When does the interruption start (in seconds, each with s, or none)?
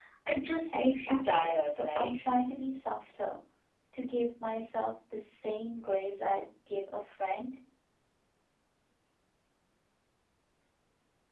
0.7 s